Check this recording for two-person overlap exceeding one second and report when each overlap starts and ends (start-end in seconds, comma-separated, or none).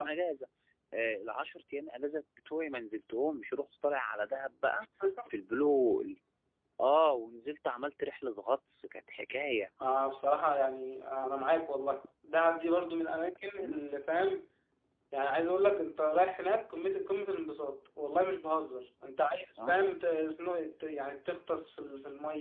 none